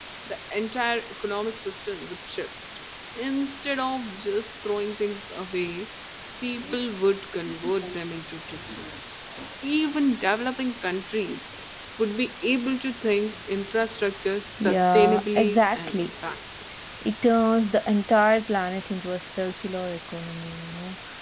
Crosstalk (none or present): present